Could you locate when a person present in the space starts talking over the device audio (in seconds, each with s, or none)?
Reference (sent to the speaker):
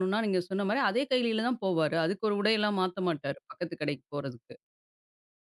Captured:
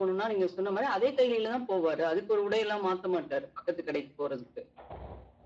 none